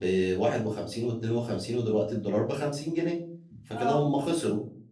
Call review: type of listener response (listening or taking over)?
listening